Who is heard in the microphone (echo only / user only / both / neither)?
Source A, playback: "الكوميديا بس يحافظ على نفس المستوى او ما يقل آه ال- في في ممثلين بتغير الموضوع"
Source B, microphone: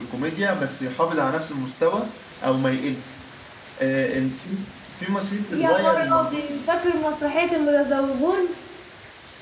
both